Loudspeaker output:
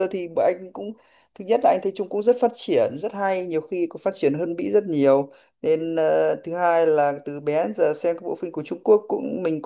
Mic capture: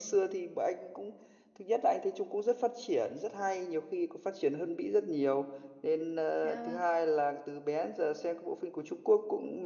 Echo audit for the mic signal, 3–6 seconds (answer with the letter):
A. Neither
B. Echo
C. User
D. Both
B